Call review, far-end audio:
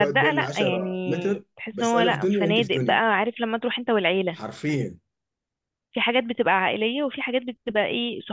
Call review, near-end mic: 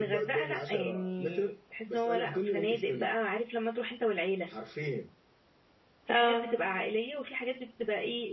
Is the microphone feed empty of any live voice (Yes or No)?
No